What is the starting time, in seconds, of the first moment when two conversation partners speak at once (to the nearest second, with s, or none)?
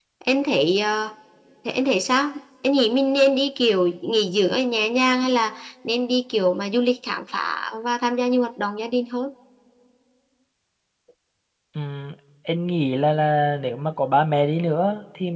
none